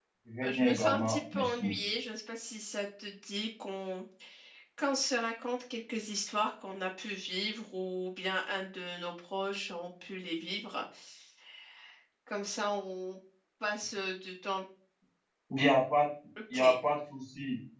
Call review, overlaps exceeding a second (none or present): present